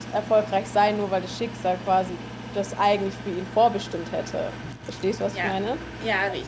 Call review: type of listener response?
taking over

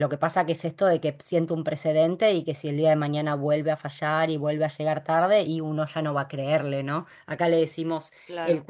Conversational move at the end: listening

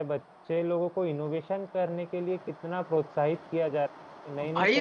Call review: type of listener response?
taking over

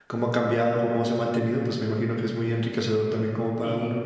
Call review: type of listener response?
taking over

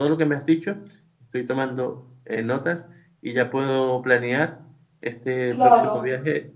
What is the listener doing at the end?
listening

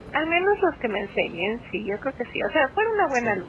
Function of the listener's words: listening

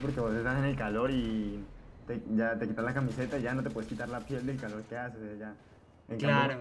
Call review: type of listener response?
listening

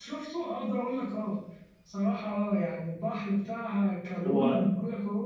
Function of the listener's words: listening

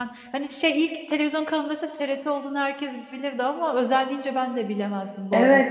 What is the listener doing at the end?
taking over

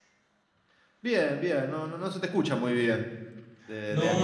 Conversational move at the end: taking over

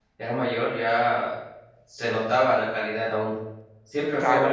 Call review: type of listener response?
taking over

